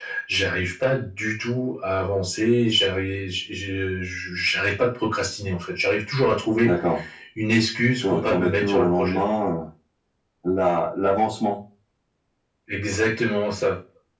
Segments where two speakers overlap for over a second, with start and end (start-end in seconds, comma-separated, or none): 8.0-9.2